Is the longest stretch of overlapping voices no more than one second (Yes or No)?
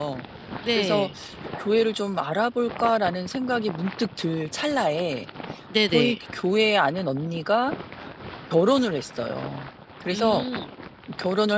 Yes